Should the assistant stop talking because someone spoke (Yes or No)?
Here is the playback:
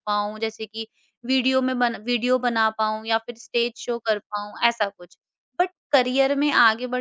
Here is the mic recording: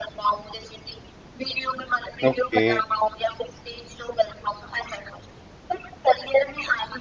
Yes